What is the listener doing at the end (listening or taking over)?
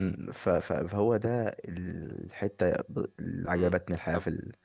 taking over